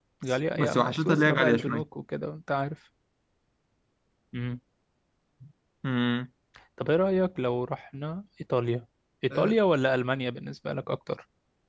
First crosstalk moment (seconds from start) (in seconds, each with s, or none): 0.5 s